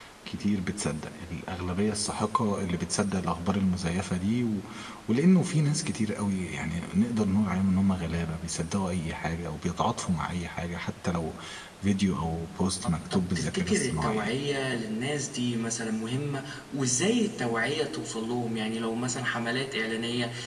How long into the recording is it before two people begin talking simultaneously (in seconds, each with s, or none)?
13.1 s